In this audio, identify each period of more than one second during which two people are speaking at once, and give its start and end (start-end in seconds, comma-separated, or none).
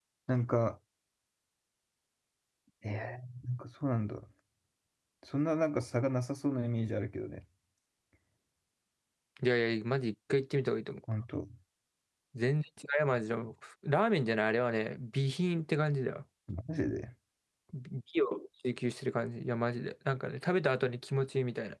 none